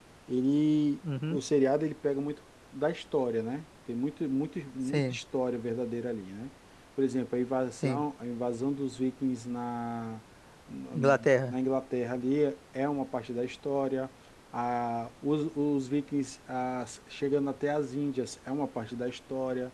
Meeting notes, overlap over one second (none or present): none